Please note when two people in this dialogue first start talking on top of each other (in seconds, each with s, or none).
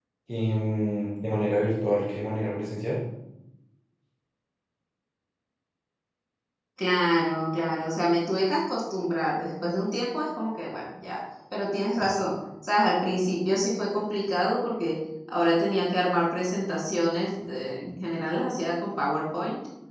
none